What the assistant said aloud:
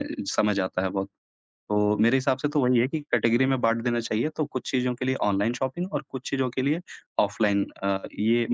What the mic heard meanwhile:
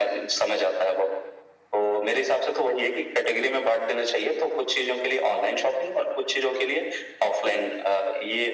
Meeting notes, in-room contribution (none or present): none